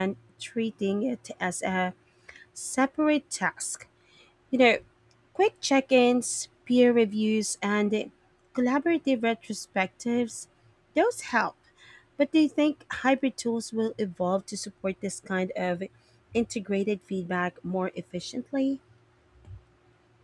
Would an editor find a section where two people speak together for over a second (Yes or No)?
No